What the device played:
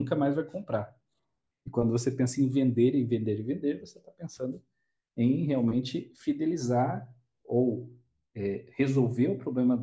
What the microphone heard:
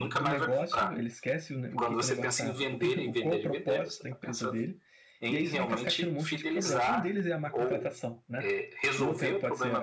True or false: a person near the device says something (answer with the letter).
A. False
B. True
B